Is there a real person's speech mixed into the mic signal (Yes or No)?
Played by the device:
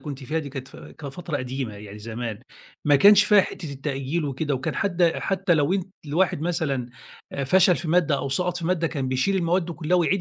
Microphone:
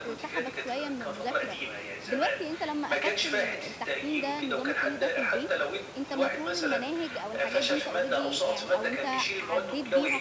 Yes